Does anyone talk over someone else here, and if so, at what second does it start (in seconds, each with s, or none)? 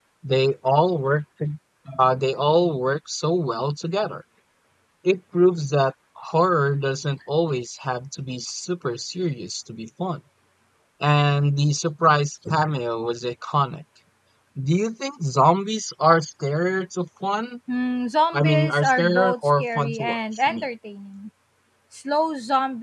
18.3 s